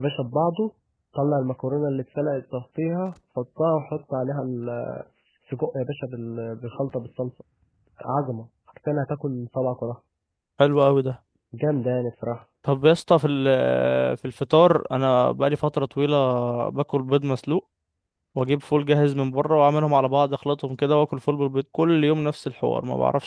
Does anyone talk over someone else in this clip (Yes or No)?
No